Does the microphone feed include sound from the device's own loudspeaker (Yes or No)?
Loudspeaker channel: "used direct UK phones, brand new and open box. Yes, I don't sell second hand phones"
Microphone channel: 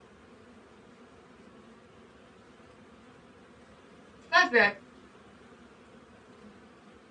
No